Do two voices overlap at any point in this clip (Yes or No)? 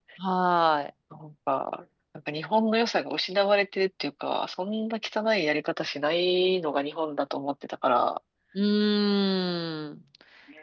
No